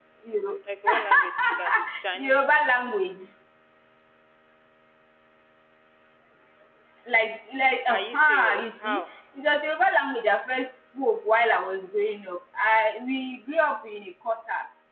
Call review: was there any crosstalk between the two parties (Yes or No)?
Yes